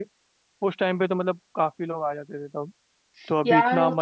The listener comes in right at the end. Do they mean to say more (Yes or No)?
Yes